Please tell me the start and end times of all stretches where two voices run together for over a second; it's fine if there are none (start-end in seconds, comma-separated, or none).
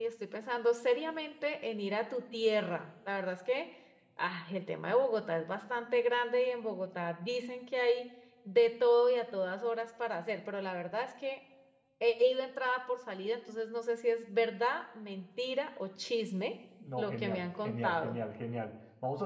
17.0-18.2